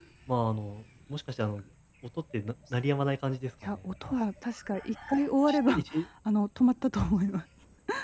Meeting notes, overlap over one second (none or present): none